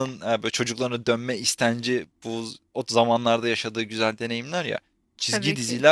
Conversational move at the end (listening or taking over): listening